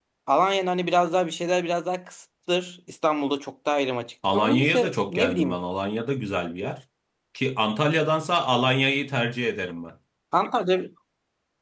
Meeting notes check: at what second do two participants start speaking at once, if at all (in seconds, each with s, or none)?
4.2 s